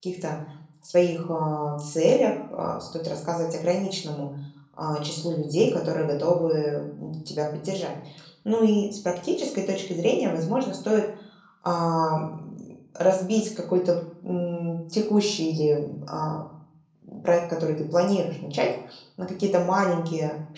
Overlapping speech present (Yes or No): No